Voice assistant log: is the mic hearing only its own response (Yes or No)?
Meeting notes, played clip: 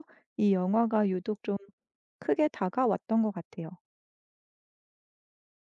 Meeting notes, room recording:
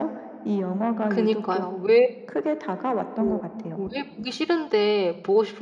No